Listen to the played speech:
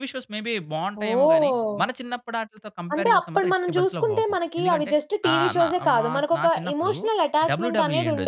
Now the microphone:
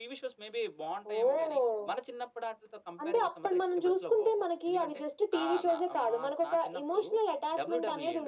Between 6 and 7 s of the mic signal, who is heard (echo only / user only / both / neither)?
echo only